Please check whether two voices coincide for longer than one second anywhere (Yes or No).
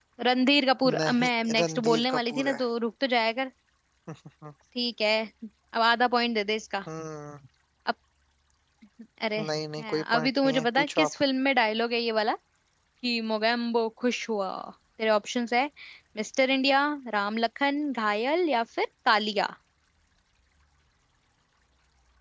Yes